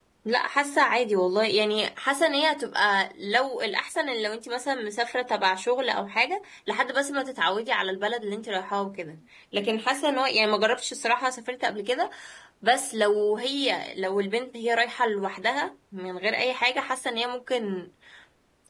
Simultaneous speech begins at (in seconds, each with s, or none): none